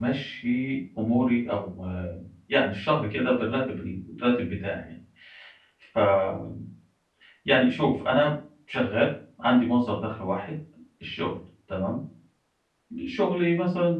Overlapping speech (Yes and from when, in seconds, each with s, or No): No